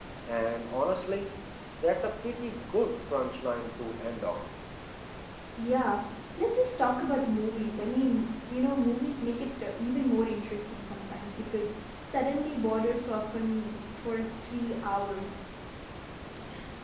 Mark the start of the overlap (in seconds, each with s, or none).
none